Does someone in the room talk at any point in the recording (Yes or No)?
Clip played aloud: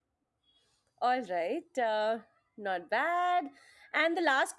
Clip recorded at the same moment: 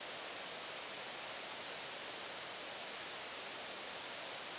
No